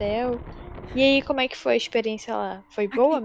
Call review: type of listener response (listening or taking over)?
taking over